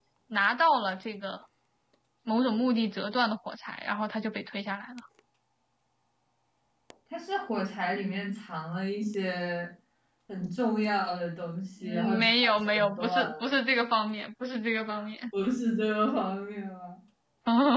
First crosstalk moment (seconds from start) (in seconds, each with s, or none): 11.8 s